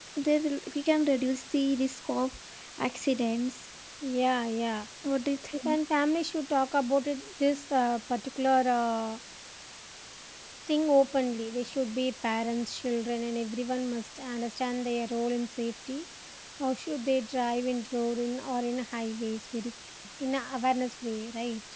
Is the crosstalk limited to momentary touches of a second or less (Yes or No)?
Yes